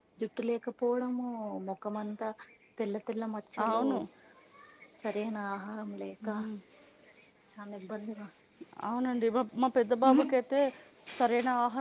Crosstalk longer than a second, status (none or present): none